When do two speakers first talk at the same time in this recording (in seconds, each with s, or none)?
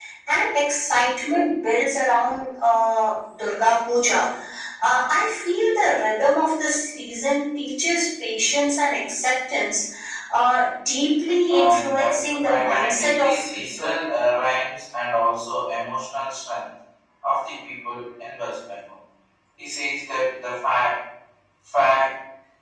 11.5 s